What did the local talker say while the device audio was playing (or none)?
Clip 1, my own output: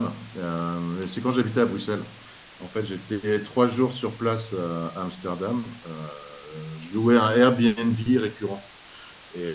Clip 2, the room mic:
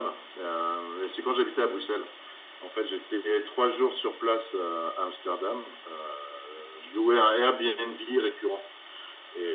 none